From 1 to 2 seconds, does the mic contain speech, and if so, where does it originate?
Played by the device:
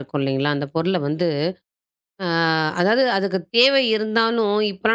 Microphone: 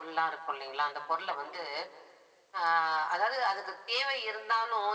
echo only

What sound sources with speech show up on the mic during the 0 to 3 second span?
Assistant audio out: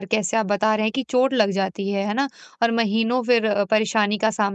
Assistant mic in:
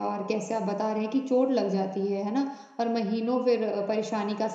echo only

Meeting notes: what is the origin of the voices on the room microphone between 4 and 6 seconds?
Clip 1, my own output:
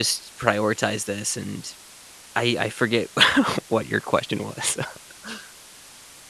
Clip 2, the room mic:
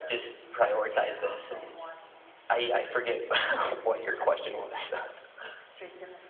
both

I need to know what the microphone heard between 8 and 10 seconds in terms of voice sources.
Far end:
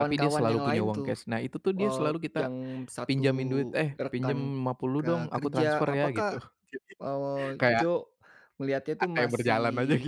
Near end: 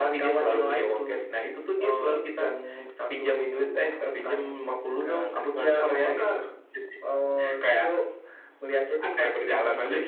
echo only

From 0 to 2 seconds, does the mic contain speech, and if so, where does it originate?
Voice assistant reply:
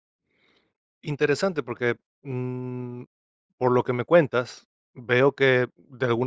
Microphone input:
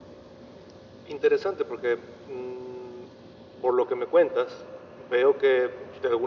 echo only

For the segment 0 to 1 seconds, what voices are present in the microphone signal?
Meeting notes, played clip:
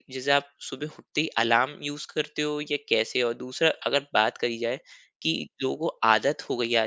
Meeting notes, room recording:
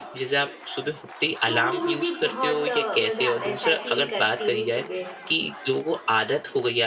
echo only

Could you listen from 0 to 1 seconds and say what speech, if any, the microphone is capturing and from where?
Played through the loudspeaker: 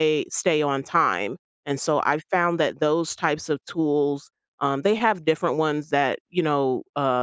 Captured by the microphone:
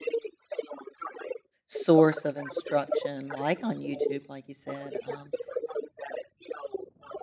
echo only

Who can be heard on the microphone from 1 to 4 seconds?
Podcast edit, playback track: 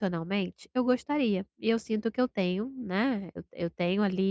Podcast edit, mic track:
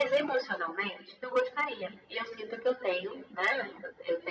echo only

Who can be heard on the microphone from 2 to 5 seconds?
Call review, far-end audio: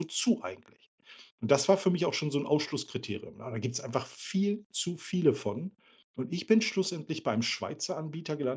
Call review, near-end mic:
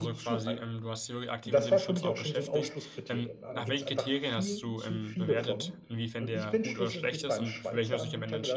both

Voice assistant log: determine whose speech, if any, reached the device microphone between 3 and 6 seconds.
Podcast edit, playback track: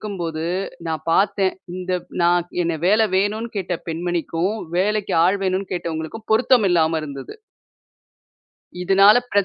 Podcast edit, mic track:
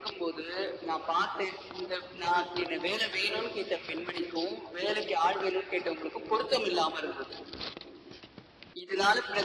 echo only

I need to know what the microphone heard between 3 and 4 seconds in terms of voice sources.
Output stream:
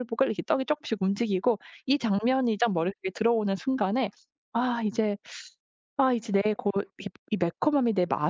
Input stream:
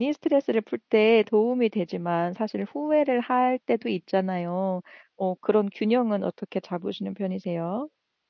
user only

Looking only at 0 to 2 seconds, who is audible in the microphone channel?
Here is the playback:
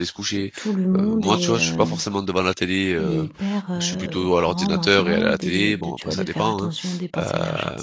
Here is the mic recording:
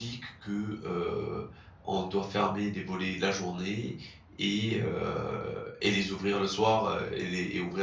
user only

